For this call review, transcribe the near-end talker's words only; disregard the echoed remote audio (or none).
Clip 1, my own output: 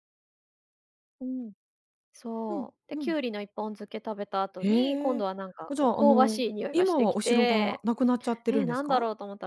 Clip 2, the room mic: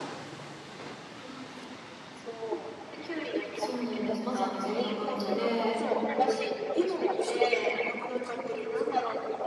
そうなんです。まさにそんな感じで、